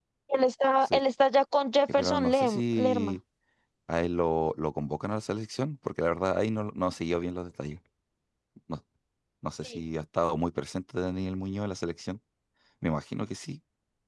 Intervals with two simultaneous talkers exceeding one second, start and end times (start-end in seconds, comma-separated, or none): 1.9-3.2